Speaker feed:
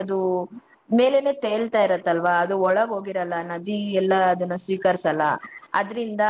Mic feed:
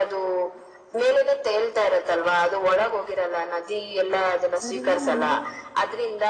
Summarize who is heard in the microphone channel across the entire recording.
both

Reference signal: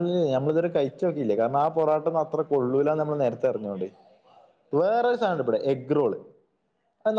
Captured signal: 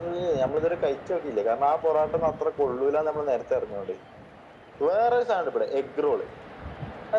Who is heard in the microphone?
echo only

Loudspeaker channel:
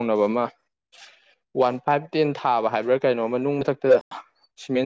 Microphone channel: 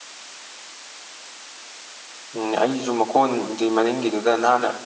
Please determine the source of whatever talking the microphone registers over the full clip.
user only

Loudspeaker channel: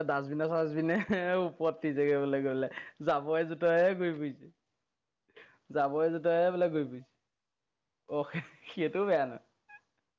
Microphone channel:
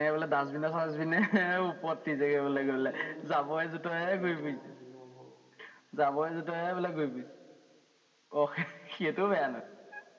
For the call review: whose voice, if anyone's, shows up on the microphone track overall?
both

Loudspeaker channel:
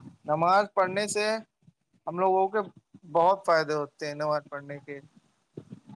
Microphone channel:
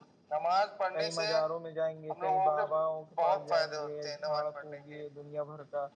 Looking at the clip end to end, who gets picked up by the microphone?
both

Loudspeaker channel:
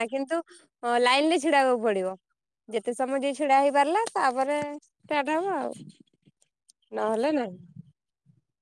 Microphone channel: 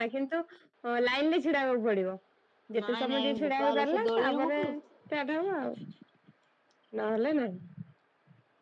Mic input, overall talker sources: both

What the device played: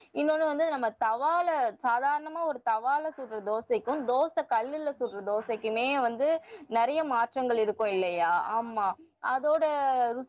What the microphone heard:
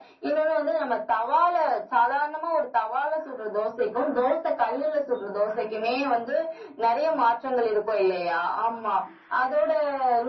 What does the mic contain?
echo only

